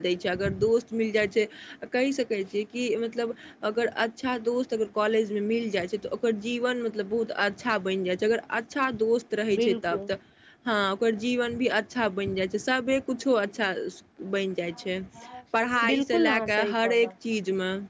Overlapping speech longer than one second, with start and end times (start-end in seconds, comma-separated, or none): 15.9-17.1